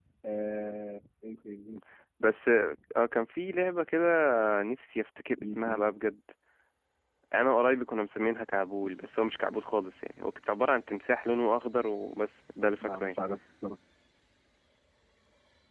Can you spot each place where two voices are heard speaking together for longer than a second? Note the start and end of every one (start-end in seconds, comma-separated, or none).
none